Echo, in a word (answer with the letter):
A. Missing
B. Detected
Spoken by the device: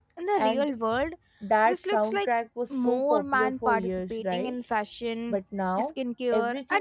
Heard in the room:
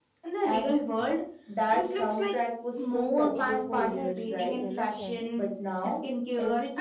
B